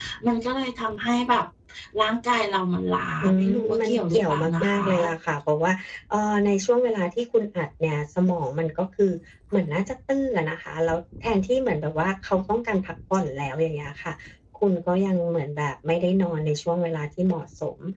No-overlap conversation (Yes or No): No